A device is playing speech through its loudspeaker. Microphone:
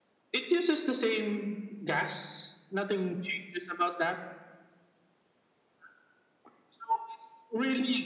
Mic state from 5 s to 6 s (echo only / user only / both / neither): neither